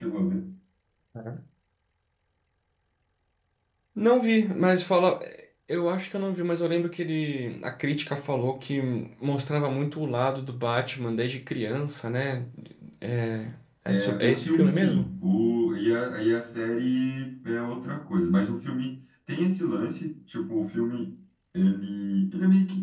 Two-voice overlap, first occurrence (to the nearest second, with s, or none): 14 s